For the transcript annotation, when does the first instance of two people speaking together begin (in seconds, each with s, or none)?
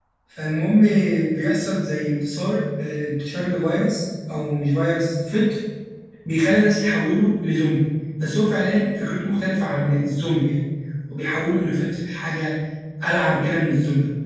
none